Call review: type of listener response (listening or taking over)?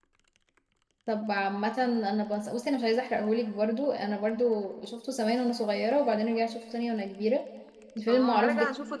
taking over